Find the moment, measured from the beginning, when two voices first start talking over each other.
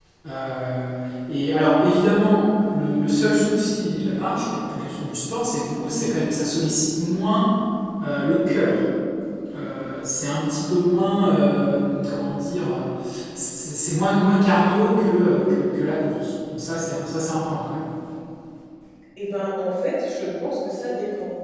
none

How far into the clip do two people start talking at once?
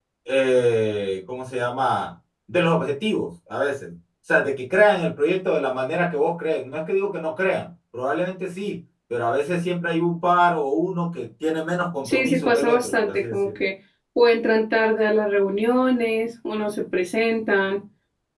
12 s

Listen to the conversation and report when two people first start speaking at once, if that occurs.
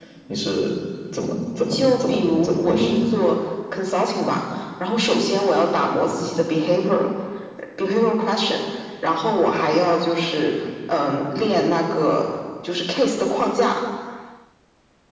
2 s

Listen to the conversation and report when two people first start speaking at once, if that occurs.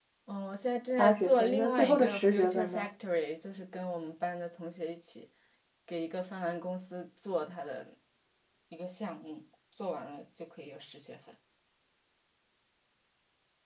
1 s

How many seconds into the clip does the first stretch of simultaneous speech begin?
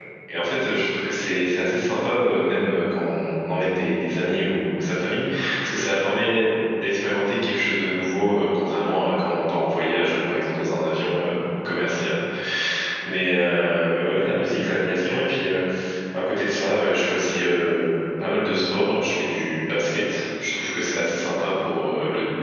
none

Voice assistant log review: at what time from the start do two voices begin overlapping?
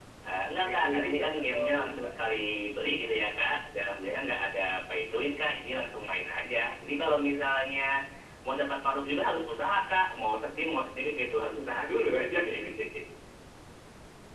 1 s

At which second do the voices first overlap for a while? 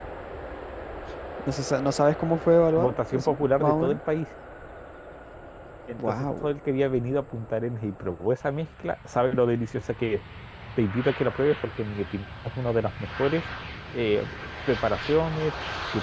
3 s

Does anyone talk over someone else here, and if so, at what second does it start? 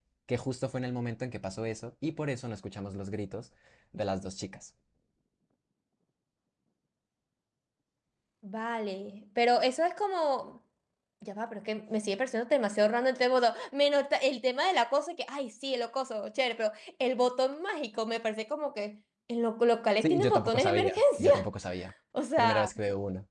20 s

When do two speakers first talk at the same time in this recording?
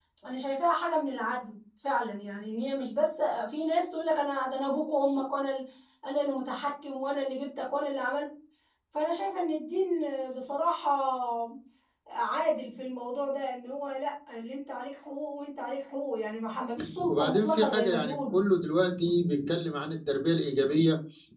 17 s

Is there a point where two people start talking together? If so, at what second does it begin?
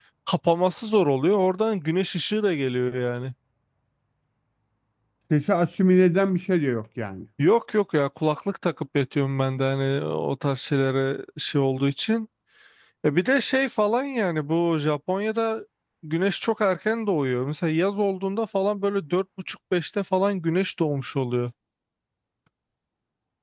none

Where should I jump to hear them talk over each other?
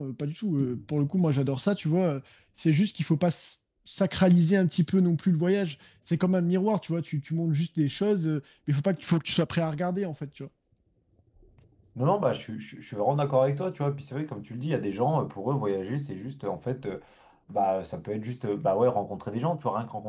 none

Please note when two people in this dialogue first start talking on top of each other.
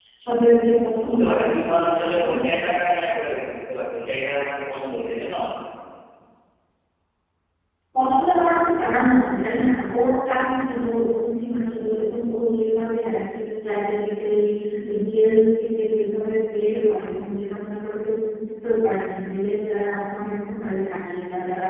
1 s

